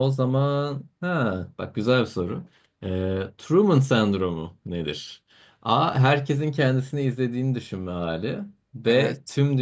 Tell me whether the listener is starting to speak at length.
No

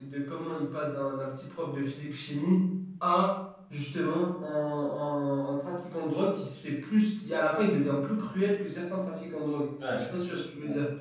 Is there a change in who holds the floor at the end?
Yes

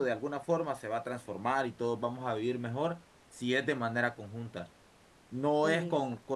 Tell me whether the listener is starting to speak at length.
No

